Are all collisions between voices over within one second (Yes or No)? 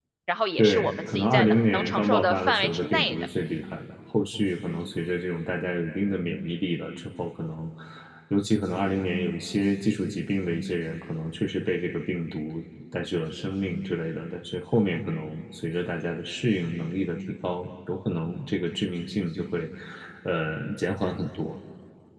No